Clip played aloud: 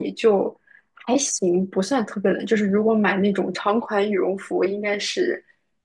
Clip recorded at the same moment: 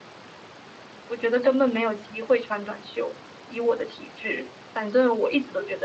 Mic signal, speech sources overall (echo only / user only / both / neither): user only